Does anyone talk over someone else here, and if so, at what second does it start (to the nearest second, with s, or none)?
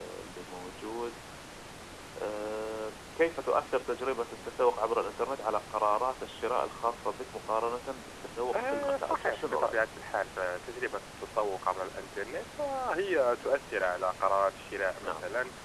9 s